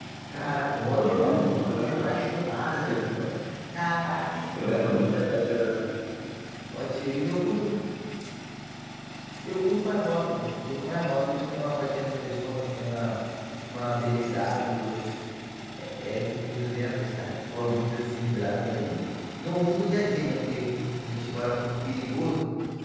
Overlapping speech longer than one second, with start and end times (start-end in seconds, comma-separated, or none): 0.9-2.2